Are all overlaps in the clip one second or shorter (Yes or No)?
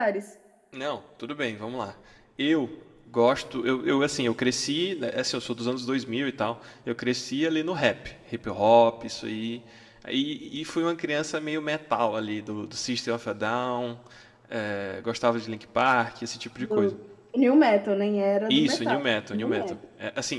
No